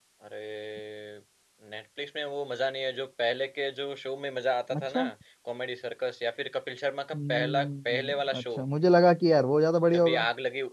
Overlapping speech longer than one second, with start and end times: 7.1-8.4

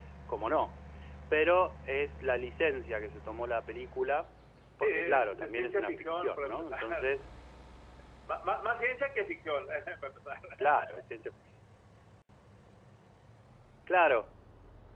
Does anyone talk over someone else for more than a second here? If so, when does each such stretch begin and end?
4.8-7.1

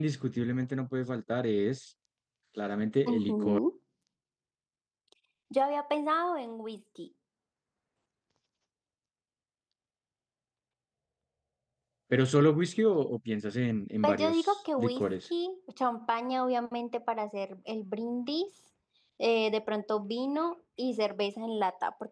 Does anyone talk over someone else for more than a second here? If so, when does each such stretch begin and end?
14.0-15.3

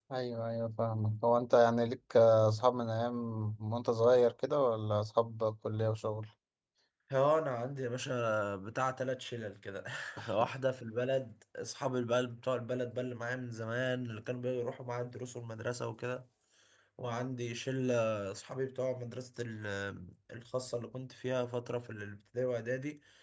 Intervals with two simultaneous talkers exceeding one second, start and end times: none

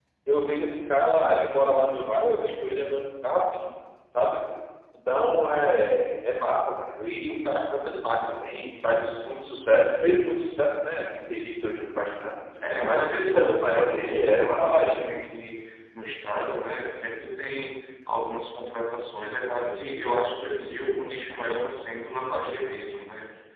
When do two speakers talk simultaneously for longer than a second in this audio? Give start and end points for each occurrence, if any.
12.8-15.0

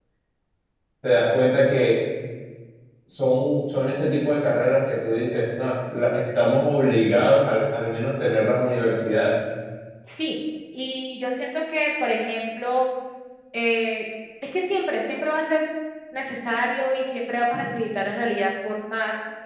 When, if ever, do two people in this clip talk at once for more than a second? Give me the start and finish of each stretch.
none

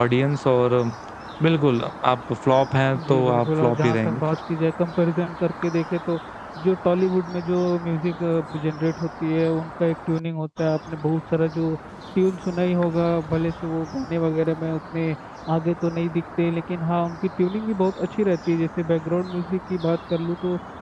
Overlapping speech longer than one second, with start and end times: 3.0-4.2

